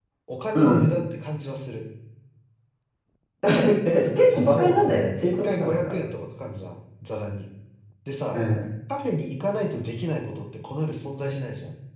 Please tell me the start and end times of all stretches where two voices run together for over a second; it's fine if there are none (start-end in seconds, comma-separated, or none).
4.2-6.0